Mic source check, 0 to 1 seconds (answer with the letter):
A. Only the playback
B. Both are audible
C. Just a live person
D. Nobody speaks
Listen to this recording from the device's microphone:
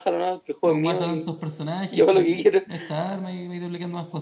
B